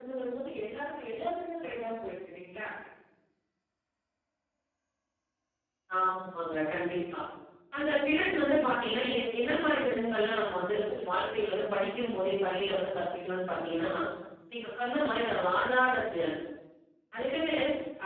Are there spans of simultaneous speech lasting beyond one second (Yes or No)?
No